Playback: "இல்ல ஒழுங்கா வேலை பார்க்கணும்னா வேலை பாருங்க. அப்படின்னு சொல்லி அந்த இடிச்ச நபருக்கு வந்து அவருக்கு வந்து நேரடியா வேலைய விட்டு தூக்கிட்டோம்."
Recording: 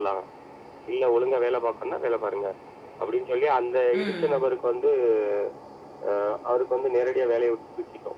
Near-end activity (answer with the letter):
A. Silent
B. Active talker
B